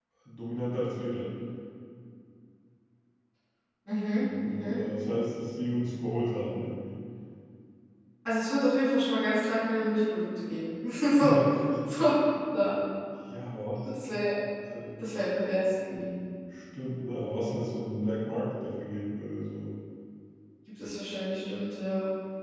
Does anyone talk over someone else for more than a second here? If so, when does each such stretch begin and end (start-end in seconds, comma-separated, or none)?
none